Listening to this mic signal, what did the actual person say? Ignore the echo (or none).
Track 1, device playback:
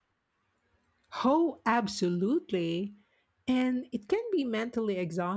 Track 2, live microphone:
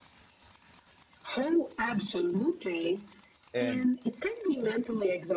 And,